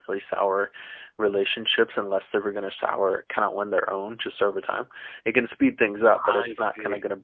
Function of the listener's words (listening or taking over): listening